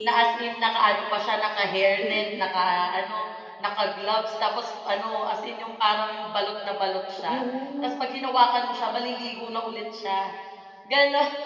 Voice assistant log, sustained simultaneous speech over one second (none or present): none